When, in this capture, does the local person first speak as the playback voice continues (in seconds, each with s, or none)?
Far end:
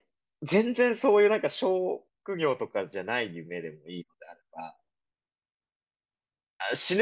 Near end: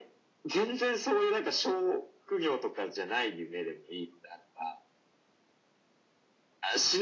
none